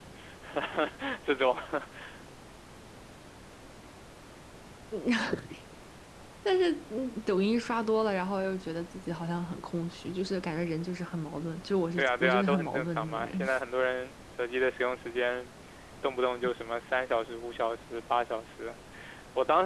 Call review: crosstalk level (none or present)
present